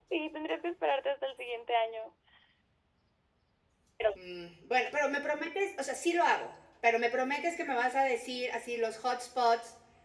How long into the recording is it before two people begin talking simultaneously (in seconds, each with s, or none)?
none